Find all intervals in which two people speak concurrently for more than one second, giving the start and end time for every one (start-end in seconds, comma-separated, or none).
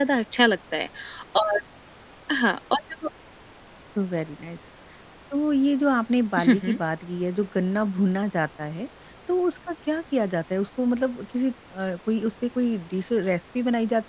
none